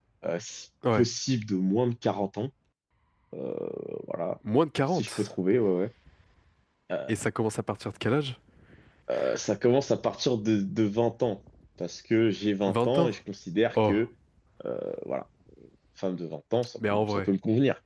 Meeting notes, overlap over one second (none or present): none